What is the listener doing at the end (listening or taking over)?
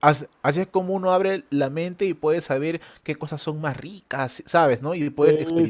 taking over